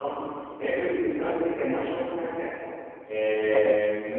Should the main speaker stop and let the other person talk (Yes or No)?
No